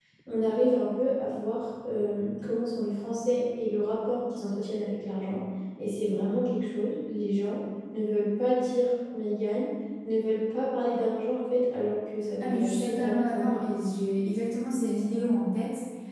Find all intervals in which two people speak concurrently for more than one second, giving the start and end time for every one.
12.4-13.6

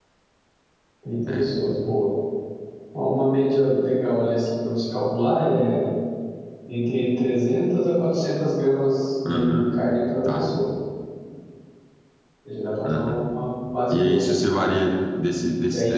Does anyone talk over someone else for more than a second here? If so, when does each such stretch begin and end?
none

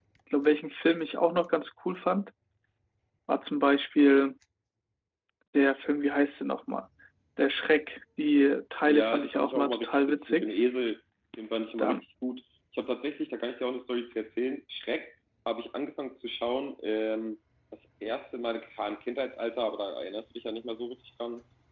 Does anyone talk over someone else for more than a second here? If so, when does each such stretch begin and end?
8.9-10.6

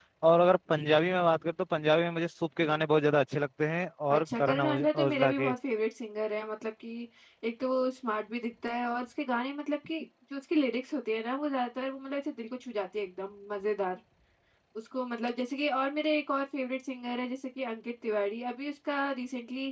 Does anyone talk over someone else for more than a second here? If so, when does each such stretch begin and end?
4.1-5.5

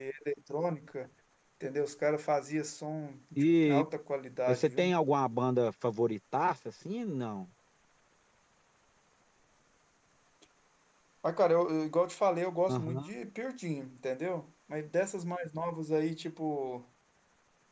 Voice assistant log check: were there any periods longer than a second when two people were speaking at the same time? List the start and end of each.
none

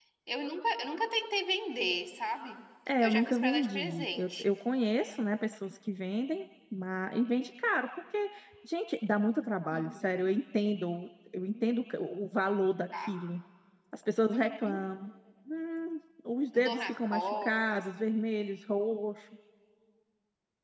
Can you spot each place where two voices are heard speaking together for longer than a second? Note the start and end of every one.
3.0-4.5, 16.5-17.8

